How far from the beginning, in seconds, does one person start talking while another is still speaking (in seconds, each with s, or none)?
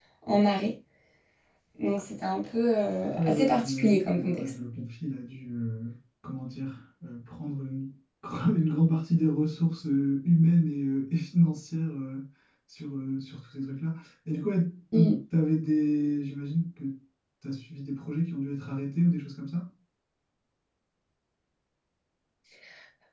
3.2 s